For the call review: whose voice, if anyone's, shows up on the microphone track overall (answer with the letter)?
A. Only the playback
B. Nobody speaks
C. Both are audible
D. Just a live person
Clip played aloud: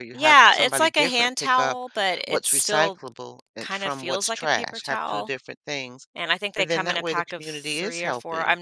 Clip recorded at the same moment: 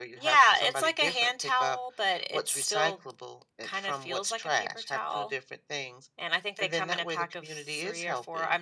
A